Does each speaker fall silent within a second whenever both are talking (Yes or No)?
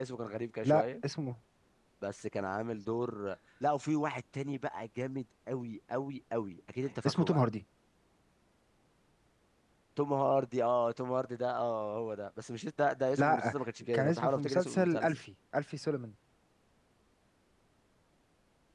No